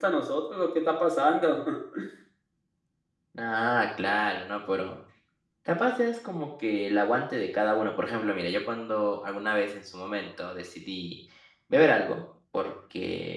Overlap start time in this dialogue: none

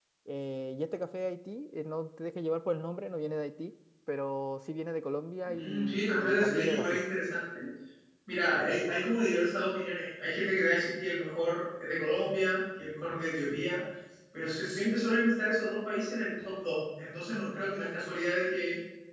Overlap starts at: 5.5 s

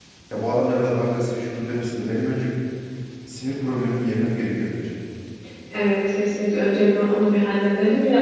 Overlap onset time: none

